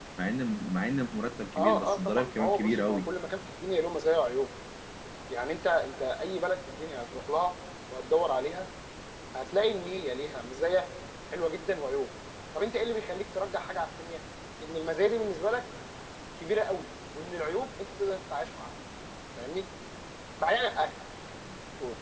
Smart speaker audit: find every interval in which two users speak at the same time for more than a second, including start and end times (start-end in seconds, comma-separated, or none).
1.6-3.1